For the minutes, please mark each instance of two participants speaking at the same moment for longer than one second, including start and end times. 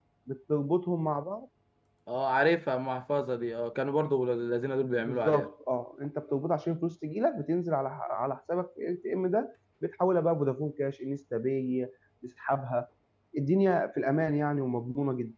none

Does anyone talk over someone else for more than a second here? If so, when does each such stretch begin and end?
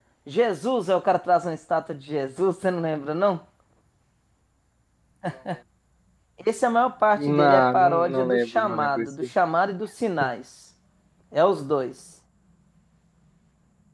7.2-9.1

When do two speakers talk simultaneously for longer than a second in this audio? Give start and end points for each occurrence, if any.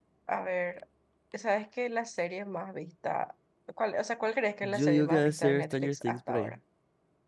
4.6-6.6

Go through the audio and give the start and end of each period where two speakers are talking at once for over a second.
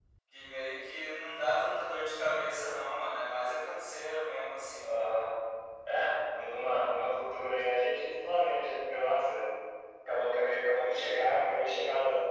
none

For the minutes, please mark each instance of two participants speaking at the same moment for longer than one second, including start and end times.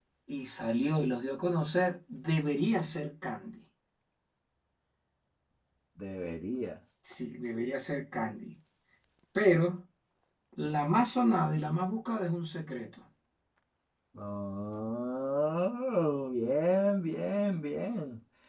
none

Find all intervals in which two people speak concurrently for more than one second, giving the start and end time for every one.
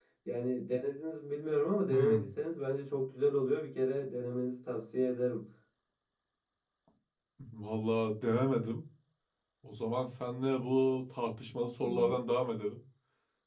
none

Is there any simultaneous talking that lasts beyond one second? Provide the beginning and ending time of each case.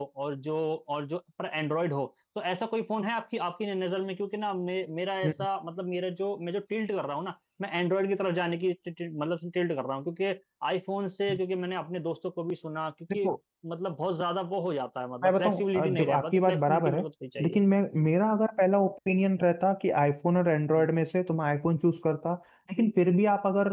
15.2-17.0

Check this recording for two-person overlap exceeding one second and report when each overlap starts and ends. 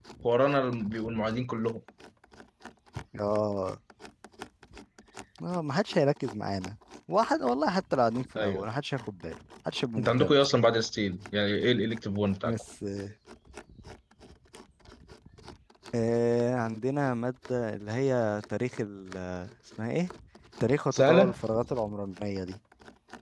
none

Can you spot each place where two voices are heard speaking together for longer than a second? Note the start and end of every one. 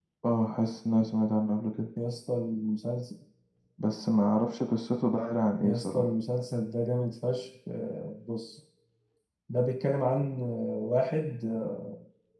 none

